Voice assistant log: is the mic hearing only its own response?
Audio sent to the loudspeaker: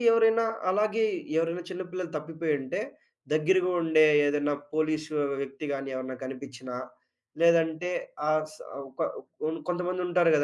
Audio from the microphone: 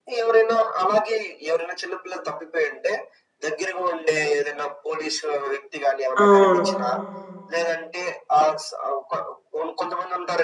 No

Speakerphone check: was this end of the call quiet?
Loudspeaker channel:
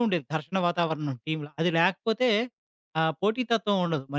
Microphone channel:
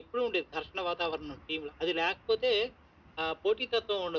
Yes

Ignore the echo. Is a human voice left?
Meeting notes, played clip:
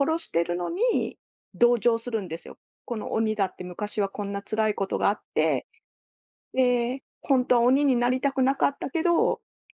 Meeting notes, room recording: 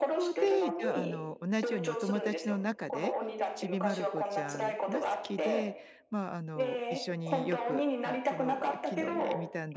Yes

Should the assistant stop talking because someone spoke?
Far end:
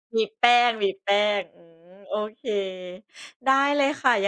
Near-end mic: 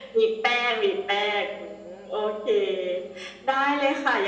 No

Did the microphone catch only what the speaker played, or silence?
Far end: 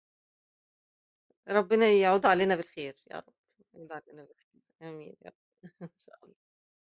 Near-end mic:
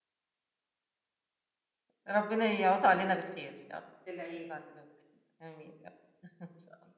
No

